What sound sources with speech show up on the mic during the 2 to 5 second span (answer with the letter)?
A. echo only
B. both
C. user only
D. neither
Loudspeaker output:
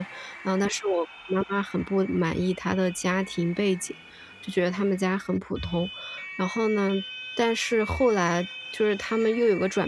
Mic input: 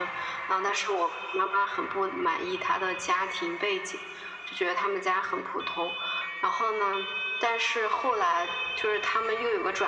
A